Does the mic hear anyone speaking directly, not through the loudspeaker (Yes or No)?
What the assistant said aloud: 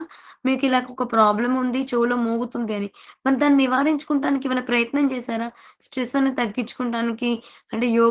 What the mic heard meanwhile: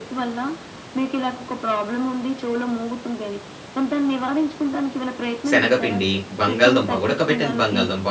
Yes